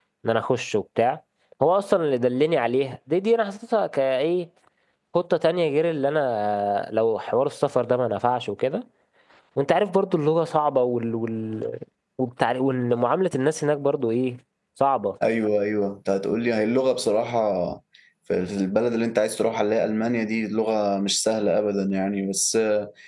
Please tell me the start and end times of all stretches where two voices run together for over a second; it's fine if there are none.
none

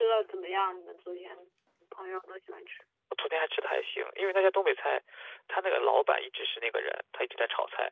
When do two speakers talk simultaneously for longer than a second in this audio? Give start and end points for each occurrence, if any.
none

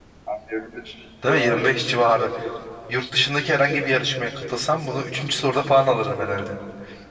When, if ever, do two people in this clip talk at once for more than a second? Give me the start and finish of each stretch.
none

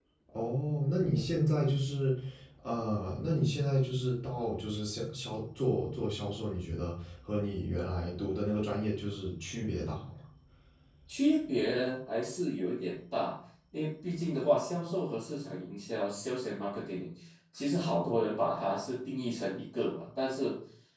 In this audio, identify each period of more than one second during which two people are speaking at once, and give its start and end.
none

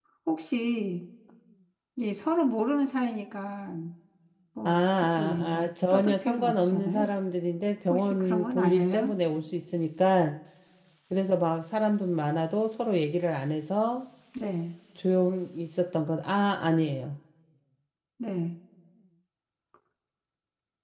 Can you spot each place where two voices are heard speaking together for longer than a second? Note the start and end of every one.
4.6-7.1, 7.9-9.1

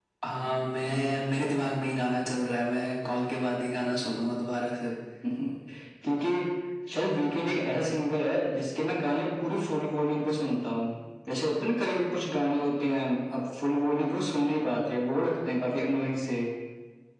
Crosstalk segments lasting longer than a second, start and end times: none

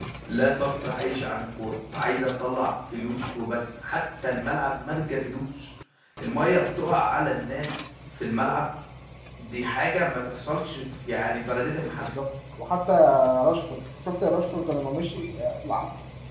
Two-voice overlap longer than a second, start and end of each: none

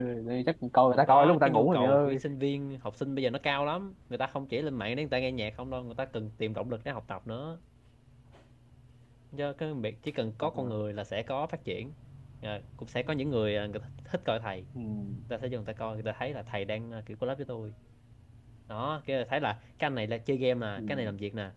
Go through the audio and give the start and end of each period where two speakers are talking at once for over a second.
0.9-2.2

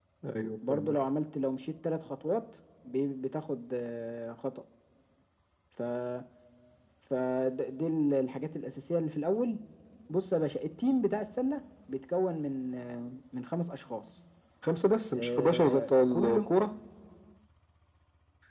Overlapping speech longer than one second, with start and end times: 15.1-16.4

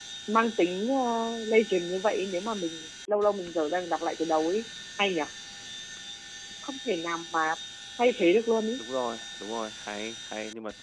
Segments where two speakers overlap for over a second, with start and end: none

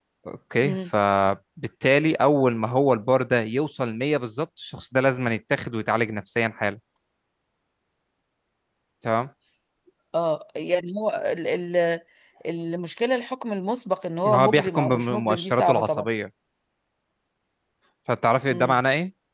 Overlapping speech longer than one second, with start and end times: 14.2-16.1

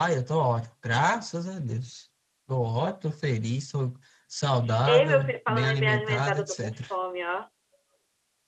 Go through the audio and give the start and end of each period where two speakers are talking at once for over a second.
4.9-6.8

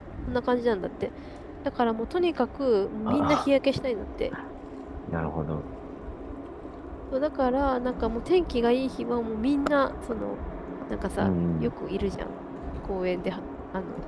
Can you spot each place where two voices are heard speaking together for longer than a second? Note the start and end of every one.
none

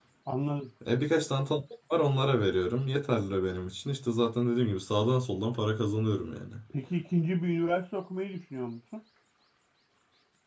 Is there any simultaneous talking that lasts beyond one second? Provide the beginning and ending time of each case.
none

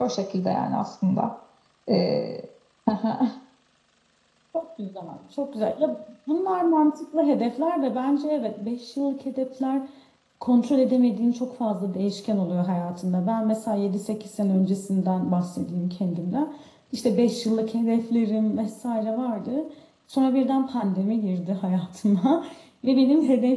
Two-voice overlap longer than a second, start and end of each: none

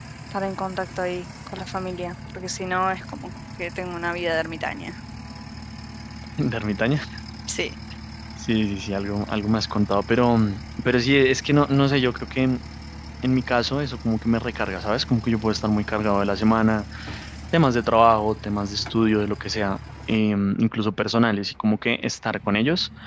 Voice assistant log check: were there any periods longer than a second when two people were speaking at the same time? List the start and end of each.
none

